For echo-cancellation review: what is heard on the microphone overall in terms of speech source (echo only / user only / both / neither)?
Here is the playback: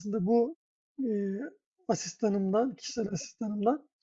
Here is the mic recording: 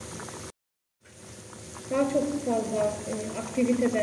user only